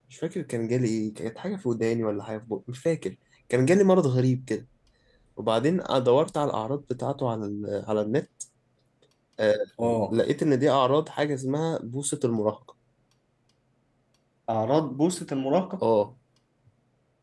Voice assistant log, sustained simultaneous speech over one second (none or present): none